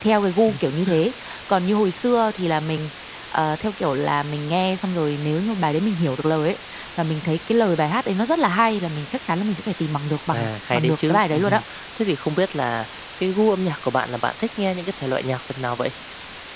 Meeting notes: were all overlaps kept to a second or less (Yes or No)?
No